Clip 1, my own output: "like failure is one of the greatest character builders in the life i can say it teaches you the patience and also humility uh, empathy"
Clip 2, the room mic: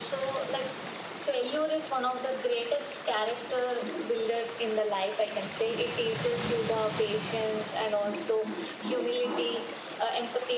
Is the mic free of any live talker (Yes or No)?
Yes